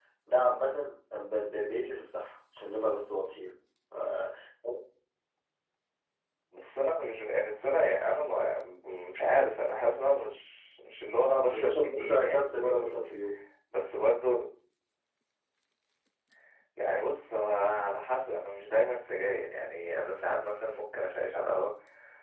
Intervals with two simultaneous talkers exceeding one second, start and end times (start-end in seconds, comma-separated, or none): 11.5-13.0